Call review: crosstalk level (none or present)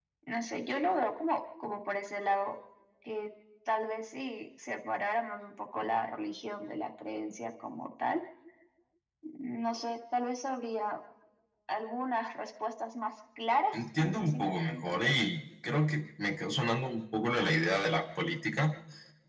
present